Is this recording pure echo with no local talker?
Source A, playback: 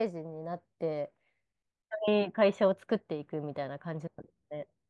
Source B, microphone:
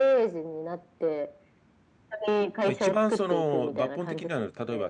No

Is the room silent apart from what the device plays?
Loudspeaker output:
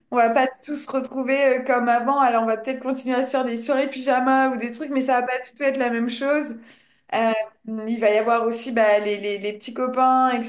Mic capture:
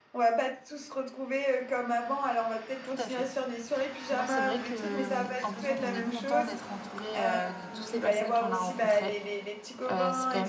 No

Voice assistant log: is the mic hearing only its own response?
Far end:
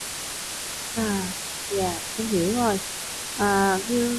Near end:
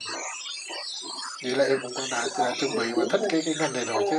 No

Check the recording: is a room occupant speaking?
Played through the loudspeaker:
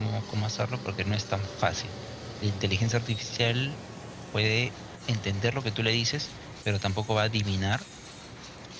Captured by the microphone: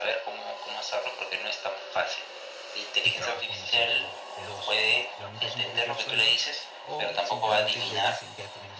Yes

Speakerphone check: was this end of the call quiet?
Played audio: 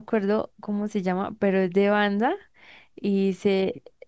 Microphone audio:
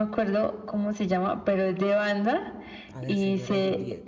No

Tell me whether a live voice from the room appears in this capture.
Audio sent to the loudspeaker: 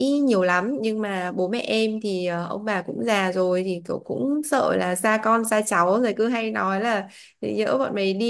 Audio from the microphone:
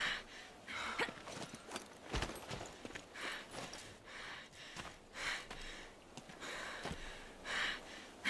No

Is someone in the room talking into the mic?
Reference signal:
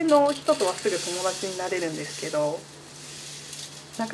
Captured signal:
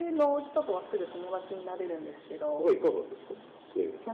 Yes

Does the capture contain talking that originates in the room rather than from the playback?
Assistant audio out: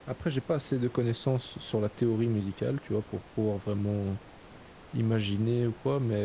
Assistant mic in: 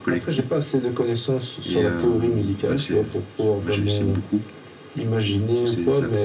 Yes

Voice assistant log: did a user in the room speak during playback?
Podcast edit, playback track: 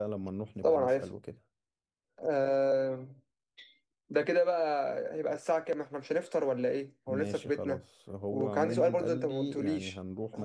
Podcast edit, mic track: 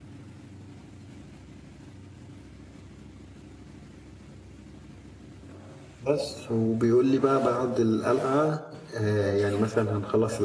Yes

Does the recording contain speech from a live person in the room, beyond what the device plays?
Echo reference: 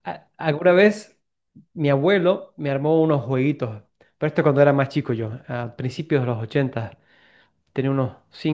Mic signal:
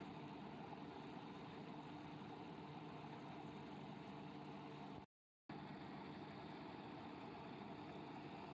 No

